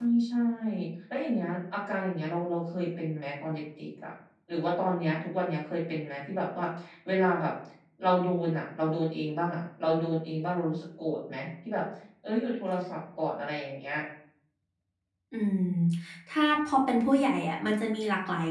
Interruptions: none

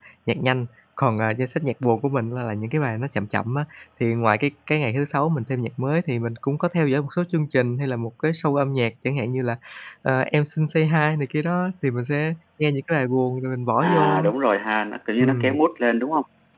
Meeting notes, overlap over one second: none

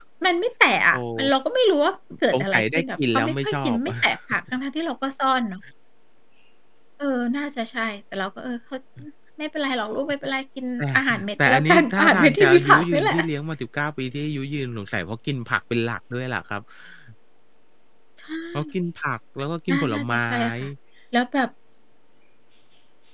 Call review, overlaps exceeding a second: present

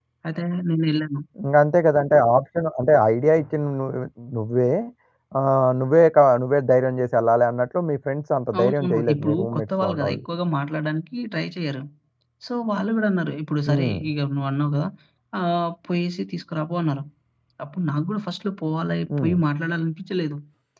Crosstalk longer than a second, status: present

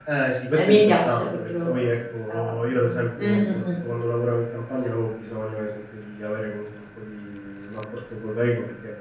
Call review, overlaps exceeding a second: present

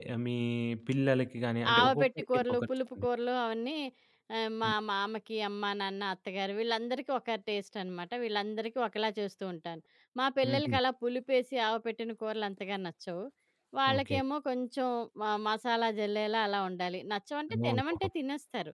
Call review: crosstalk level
present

